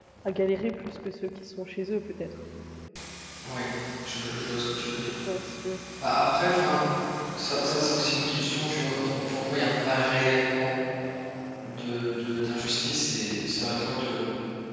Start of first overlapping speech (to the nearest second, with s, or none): none